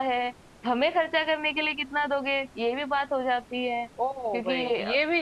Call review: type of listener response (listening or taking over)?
taking over